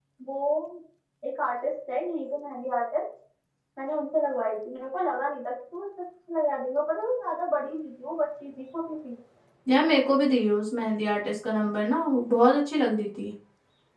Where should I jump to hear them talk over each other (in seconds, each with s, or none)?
none